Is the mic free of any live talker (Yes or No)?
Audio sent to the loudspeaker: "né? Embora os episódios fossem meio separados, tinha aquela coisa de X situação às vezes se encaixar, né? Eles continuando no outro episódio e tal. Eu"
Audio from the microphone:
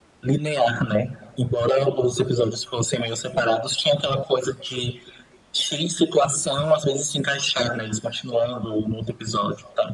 Yes